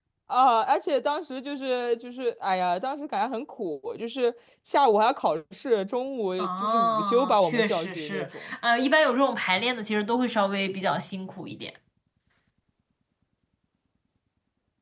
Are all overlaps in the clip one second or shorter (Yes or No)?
No